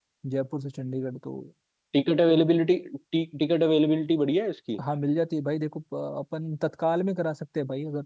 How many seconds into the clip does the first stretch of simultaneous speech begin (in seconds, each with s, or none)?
none